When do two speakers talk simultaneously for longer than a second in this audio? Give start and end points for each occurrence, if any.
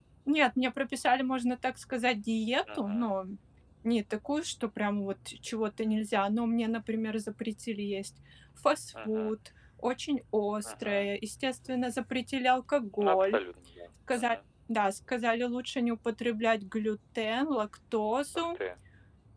none

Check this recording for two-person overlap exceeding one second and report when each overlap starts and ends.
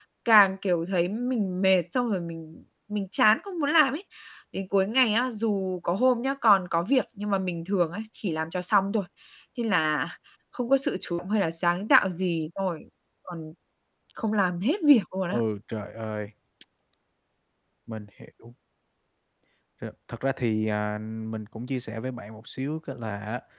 none

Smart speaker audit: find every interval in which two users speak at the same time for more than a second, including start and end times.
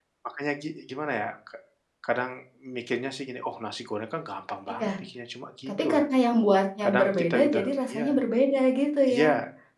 6.8-8.1

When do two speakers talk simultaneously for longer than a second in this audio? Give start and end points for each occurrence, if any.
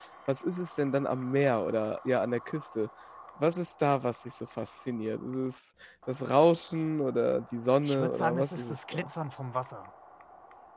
7.8-9.1

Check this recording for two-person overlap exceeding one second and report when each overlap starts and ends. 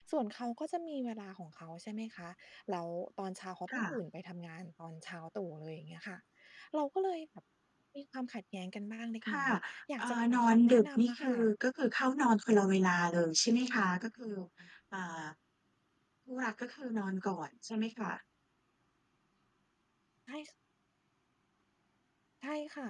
10.0-11.5

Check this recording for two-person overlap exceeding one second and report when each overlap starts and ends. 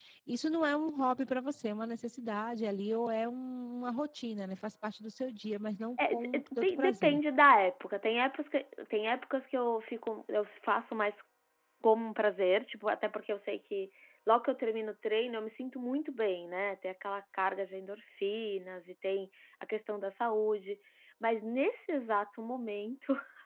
6.0-7.2

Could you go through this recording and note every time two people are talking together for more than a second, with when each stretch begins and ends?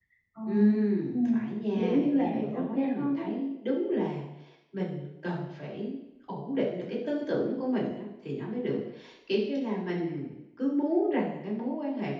1.8-3.3

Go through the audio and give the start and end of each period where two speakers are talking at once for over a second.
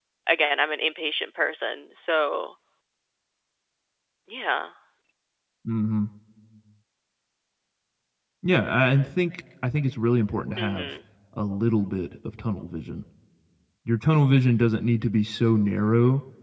none

